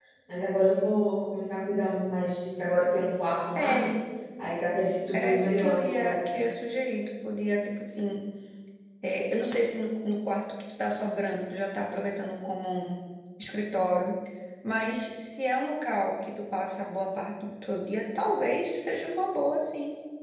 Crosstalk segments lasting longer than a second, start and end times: 5.1-6.4

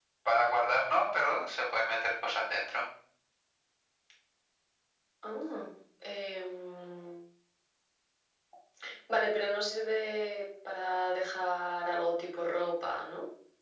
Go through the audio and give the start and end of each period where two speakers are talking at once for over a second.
none

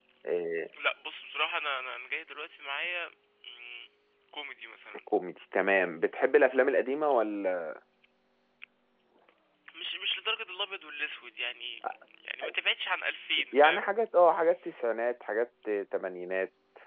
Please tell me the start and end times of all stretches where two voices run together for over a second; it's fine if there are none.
none

